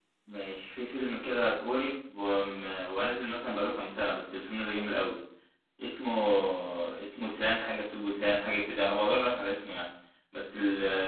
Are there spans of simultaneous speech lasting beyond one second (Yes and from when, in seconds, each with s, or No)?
No